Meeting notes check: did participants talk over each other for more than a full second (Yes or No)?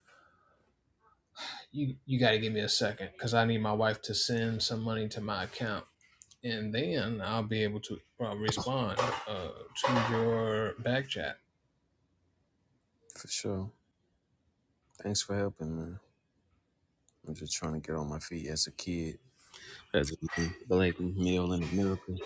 No